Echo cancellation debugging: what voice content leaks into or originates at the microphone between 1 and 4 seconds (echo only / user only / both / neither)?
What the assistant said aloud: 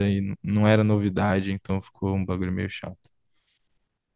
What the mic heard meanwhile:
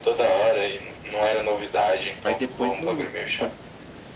both